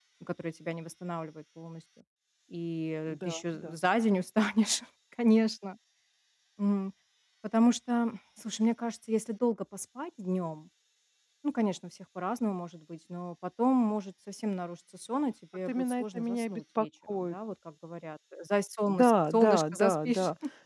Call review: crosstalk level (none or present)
present